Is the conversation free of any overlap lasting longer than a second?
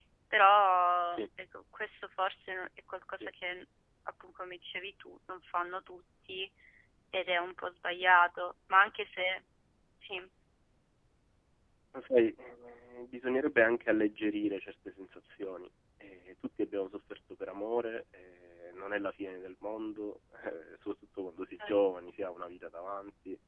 Yes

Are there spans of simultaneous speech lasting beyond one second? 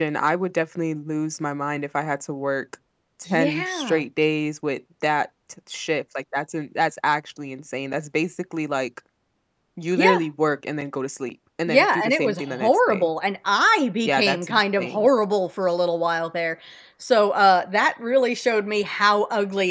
Yes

